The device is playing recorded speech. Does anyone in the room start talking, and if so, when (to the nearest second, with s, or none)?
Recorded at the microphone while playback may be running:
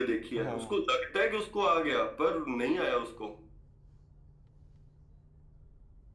0 s